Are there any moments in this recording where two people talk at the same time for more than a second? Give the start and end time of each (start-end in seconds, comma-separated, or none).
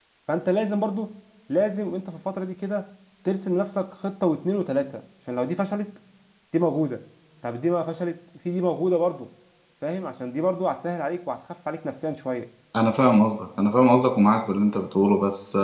none